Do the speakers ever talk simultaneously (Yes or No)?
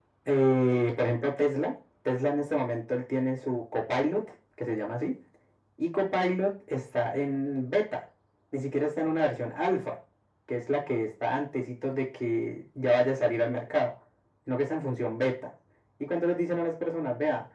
No